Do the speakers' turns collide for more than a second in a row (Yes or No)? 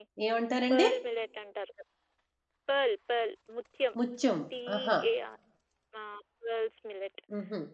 No